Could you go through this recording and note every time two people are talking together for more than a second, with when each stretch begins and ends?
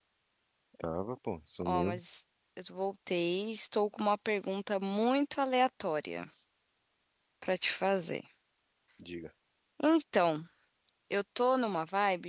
none

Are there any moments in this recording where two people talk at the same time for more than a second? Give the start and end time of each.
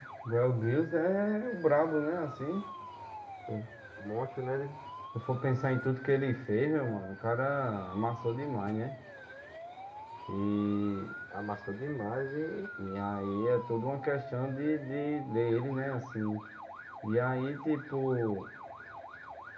none

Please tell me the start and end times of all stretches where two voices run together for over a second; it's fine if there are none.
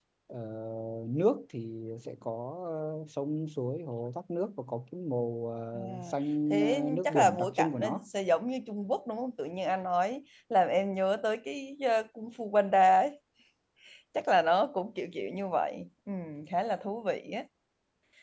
6.5-8.0

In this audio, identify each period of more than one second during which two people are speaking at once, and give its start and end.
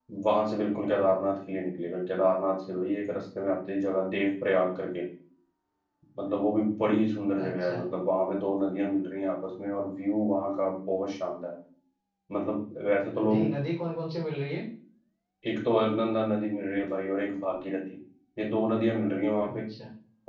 none

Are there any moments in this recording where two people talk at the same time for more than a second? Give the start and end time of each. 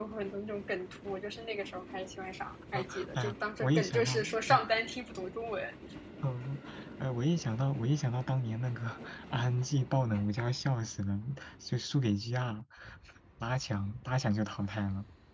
2.7-4.6

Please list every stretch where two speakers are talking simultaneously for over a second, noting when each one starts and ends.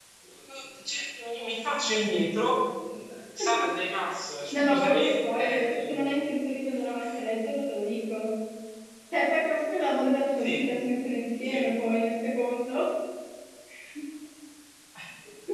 4.5-6.2

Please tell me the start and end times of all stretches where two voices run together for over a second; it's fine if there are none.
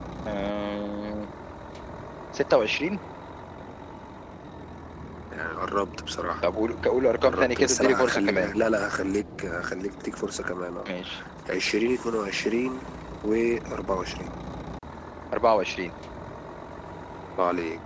7.2-8.5

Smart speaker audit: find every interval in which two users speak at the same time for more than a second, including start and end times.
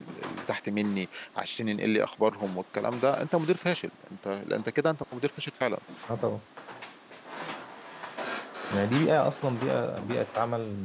none

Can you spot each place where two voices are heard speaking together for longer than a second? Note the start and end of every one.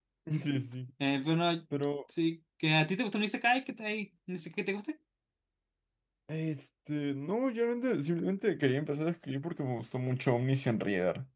none

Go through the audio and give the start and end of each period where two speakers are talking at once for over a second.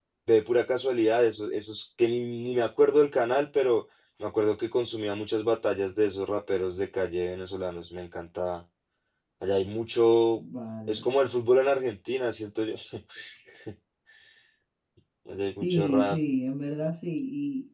none

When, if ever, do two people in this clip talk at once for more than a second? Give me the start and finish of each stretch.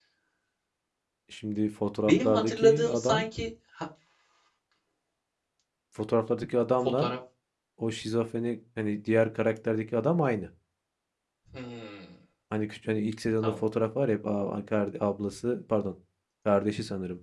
2.0-3.2

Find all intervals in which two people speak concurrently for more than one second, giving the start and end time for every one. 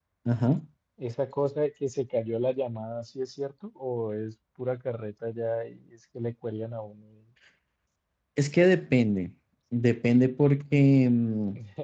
none

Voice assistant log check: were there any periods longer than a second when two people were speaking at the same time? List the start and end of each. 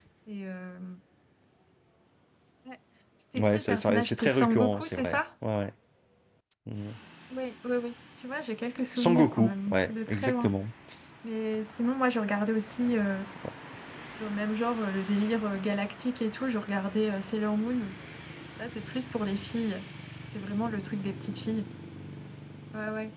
3.4-5.2, 8.9-10.5

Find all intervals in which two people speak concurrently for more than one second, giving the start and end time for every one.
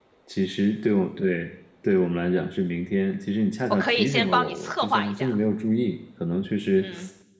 3.7-5.3

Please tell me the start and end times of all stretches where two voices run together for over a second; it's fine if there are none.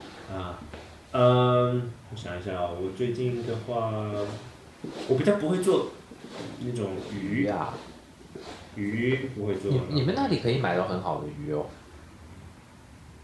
9.7-11.1

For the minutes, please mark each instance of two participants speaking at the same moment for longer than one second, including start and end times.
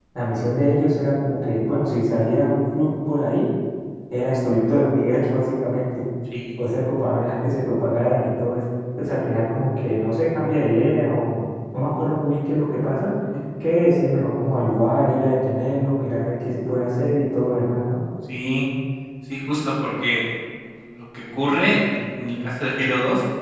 none

